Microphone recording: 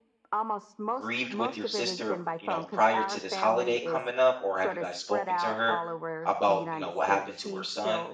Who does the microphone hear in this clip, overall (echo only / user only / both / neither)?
both